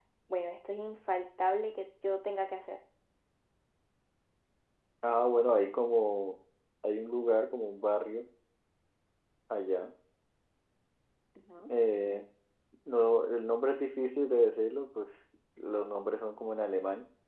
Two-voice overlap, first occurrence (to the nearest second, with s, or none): none